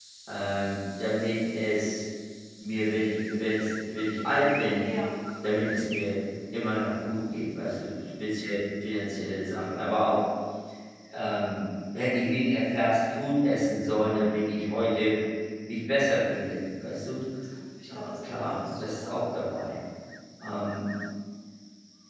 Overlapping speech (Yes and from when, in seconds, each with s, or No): Yes, from 17.9 s